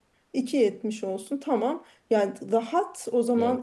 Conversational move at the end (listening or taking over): listening